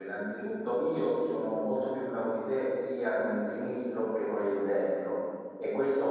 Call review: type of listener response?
listening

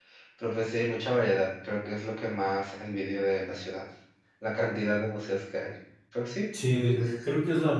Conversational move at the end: taking over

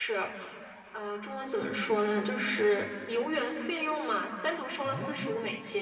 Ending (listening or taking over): listening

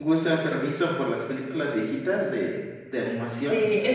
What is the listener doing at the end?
taking over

